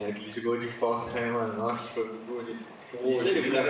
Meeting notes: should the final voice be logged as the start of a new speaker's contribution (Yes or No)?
No